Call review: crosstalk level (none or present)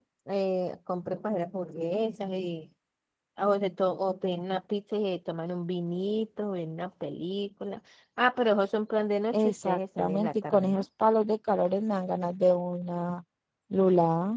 present